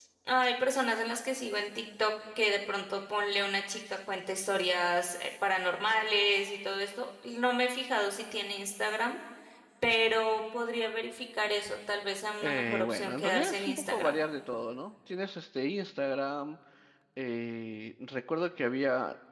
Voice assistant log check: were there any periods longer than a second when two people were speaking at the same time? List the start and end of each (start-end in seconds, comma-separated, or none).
12.4-14.2